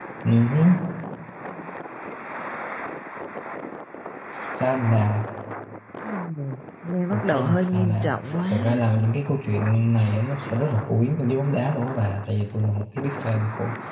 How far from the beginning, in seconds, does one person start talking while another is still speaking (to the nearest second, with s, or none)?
7 s